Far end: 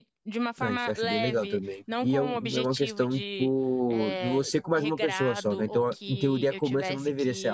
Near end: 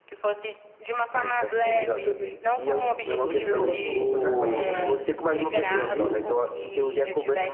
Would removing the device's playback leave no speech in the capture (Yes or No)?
No